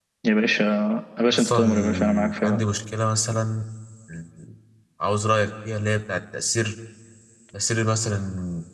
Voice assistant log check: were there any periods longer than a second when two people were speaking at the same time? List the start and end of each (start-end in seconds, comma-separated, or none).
1.3-2.6